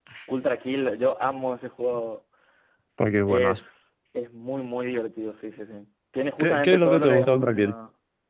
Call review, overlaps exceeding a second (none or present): present